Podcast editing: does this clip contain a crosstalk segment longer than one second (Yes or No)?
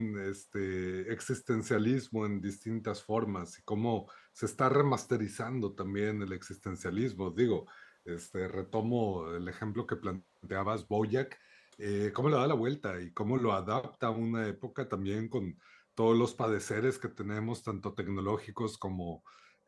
No